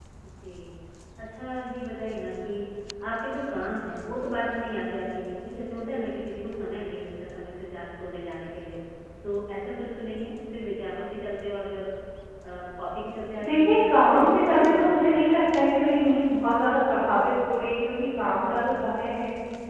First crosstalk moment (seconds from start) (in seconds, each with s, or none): 13.4 s